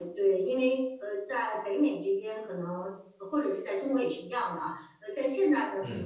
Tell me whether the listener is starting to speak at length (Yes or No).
No